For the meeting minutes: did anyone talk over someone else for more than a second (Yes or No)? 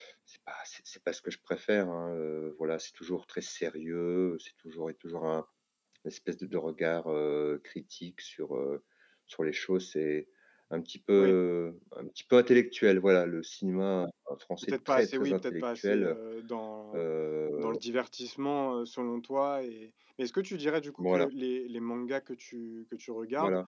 Yes